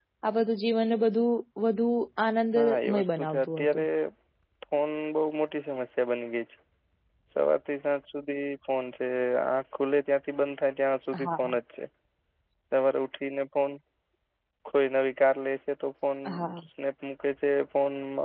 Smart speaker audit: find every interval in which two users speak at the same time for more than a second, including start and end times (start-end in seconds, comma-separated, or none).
2.5-3.9